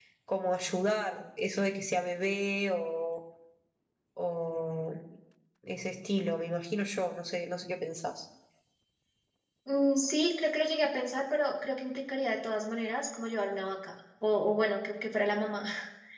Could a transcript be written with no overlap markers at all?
Yes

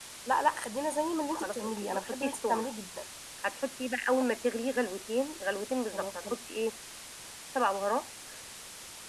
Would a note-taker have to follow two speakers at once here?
Yes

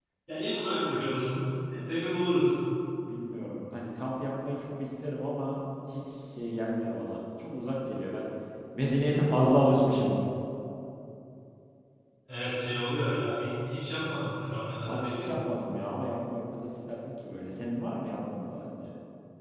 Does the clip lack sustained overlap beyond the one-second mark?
Yes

